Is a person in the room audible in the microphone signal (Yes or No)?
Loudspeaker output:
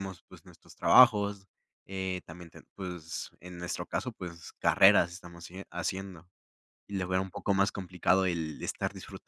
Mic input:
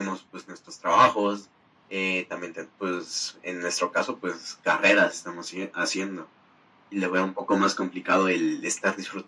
No